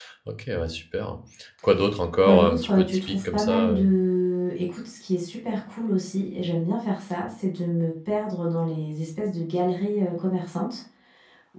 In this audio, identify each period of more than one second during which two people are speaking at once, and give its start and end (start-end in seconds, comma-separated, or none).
2.2-3.9